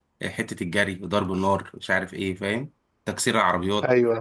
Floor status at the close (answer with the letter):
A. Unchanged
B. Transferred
A